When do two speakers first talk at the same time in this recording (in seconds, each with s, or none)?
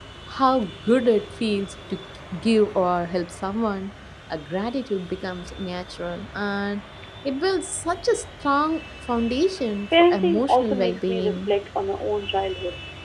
9.9 s